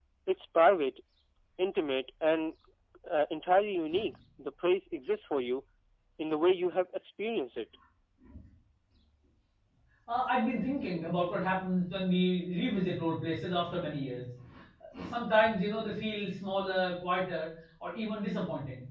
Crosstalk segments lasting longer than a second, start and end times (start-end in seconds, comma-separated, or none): none